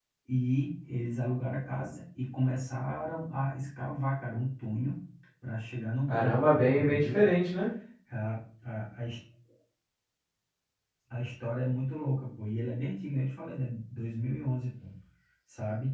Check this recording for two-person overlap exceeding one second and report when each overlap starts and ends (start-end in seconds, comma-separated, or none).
6.1-7.3